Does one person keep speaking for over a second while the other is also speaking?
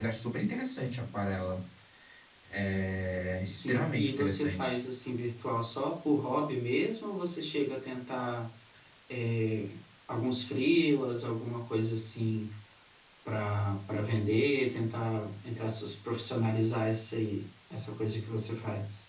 Yes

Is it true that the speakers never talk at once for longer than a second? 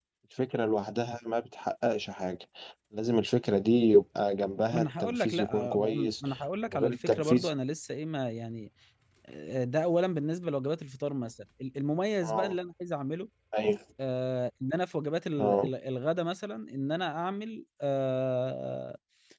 No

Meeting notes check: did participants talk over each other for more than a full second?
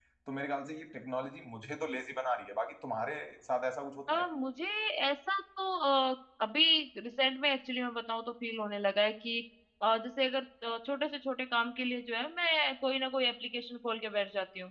No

